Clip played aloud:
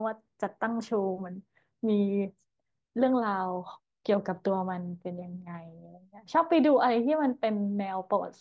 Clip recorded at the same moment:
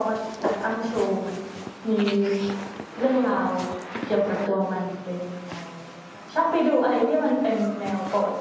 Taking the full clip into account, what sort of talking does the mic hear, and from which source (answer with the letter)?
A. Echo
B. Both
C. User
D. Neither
A